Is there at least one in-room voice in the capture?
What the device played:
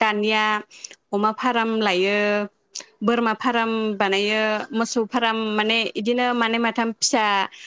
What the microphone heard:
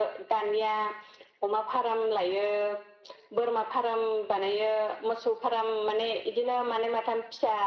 No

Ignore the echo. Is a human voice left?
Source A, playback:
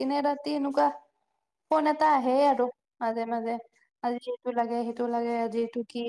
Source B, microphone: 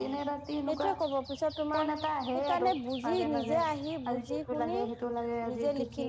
Yes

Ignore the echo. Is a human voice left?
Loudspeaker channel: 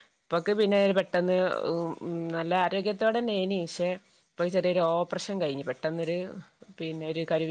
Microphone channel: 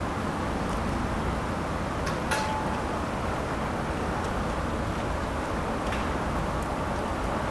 No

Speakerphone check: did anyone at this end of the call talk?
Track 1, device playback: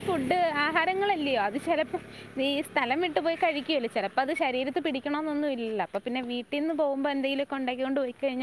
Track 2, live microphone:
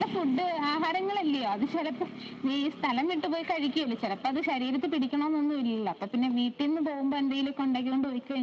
No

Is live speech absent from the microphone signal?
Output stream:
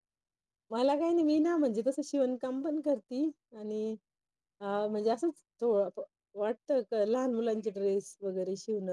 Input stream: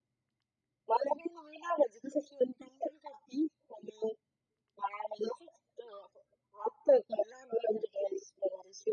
Yes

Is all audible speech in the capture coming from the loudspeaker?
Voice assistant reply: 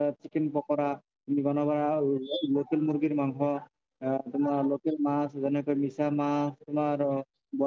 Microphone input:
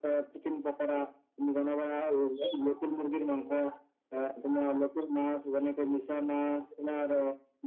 Yes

